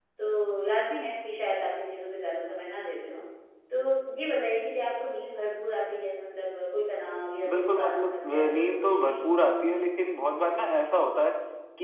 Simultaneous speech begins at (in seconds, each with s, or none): 7.4 s